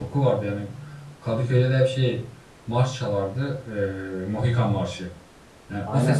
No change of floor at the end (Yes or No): Yes